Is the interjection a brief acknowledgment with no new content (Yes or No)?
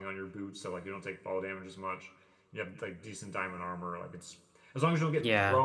Yes